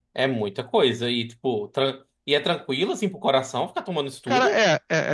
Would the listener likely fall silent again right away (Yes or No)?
No